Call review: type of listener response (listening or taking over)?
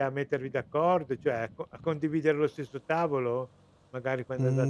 taking over